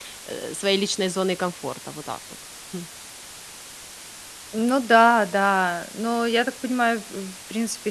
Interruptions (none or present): none